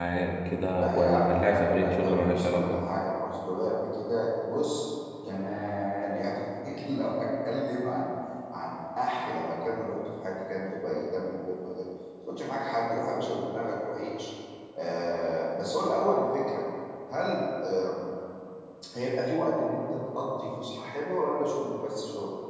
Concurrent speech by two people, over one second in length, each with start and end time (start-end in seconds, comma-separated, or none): 0.8-2.8